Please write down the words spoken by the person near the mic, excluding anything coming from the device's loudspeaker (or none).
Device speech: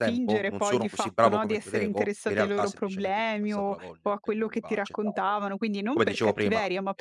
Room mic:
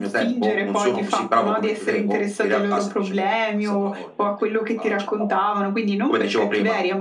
none